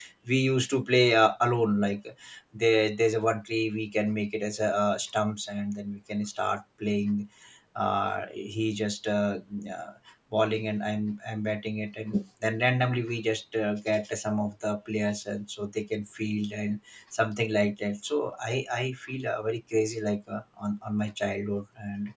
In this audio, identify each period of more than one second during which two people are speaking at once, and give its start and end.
none

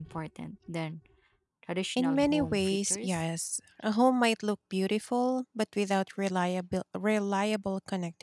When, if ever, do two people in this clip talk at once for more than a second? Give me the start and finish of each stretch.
2.0-3.2

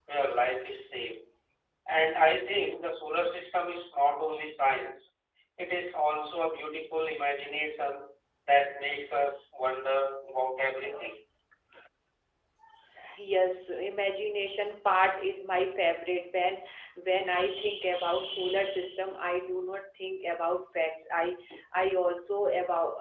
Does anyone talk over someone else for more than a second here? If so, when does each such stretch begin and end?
none

